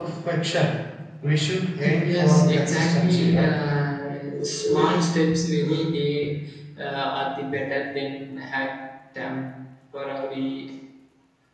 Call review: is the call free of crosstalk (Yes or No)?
No